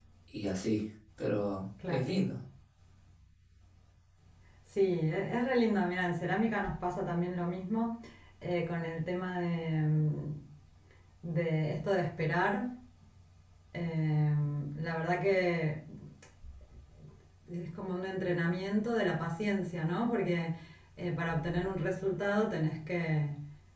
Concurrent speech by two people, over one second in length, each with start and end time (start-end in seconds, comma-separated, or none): none